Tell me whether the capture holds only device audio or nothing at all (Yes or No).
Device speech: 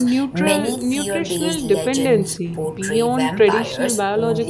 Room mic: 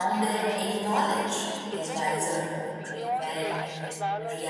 No